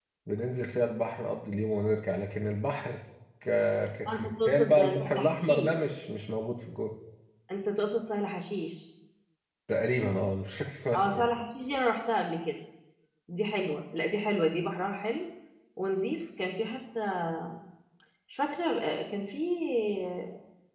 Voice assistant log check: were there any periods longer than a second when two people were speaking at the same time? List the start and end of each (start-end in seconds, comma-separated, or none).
4.1-5.7